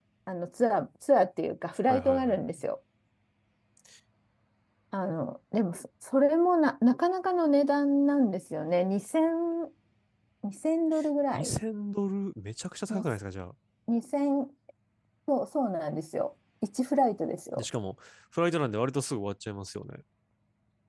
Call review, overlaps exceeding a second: none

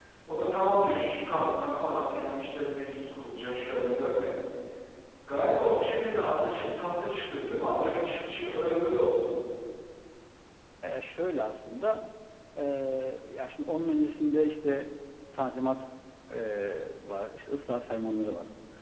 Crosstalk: none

